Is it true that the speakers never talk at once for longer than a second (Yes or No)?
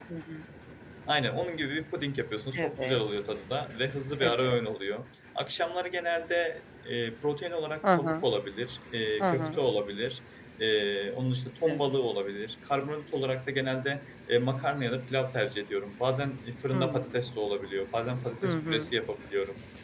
Yes